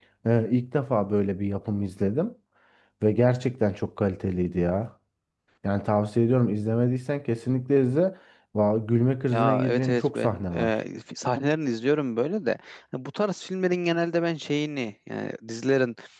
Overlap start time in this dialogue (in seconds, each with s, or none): 9.3 s